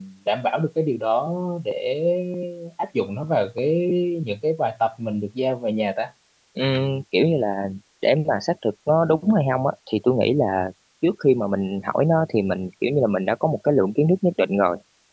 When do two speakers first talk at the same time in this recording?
none

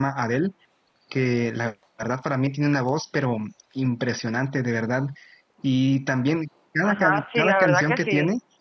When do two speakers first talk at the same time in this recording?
6.8 s

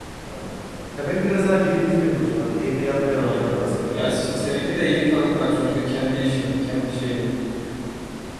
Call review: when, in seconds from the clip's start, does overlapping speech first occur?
2.9 s

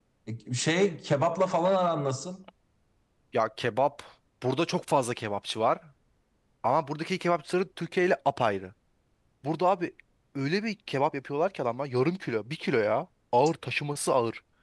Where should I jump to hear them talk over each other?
none

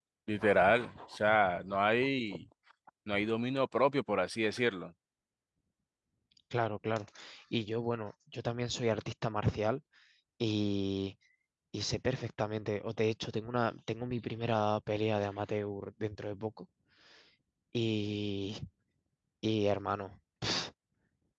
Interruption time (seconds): none

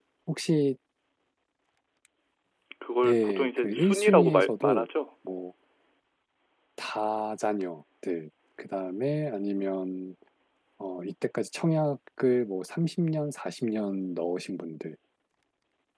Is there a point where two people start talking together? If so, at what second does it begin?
3.0 s

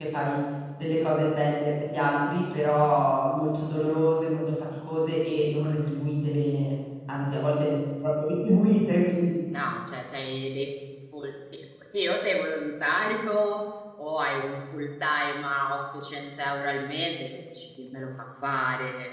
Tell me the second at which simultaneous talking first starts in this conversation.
none

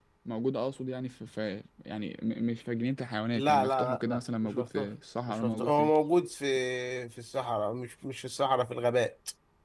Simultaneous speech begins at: 3.4 s

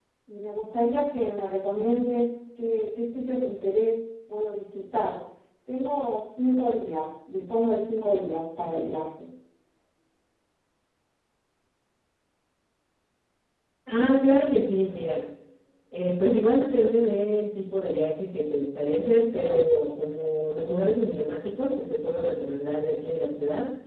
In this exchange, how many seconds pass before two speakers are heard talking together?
none

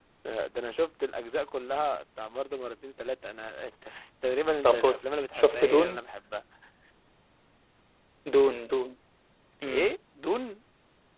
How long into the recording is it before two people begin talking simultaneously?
4.6 s

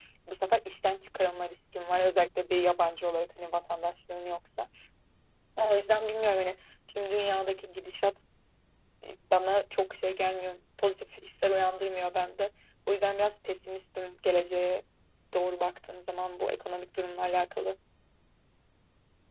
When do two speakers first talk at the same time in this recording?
none

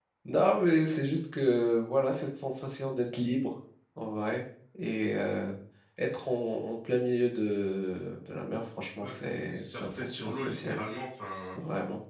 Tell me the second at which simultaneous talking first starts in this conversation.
9.0 s

